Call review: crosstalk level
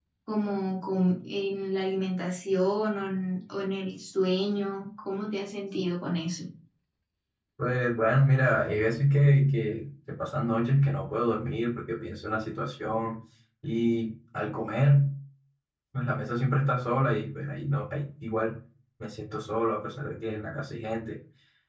none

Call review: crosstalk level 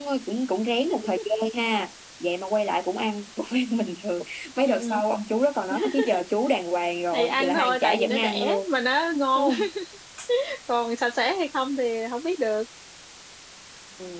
present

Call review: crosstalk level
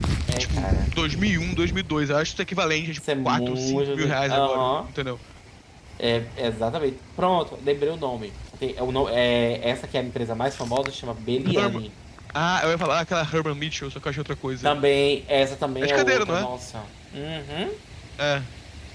present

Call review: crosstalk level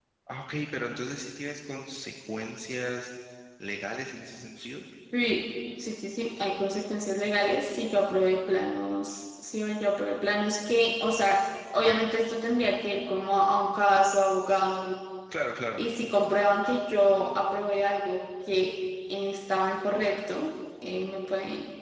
none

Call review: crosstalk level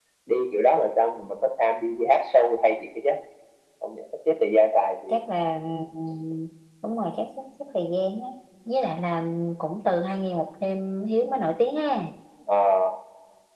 none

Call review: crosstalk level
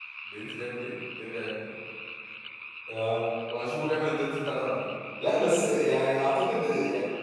none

